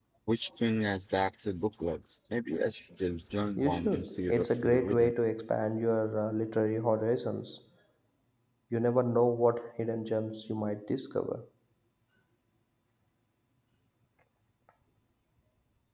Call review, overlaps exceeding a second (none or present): present